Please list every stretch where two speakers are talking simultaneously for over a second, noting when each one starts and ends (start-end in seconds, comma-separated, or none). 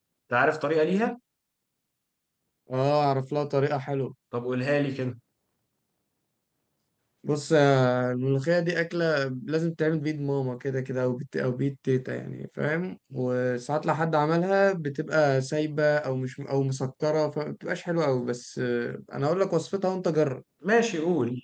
none